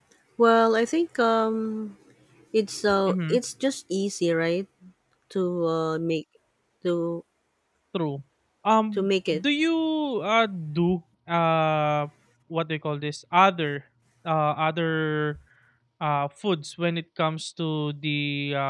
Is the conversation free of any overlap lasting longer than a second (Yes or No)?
Yes